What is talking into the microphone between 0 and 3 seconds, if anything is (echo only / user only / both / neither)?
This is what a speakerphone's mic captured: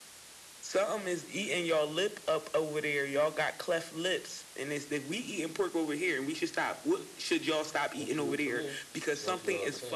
echo only